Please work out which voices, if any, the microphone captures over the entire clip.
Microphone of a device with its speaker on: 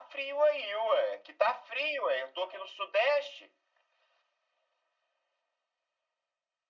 echo only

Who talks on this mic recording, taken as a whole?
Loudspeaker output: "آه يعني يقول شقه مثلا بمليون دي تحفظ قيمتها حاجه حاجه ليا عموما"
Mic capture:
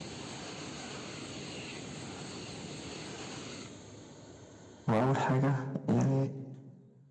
user only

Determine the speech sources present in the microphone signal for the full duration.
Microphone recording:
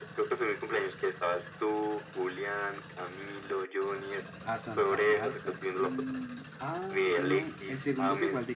both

